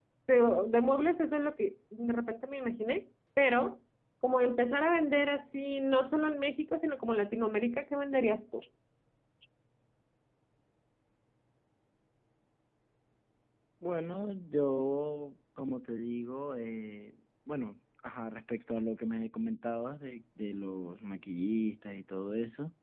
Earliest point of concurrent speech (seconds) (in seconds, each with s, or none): none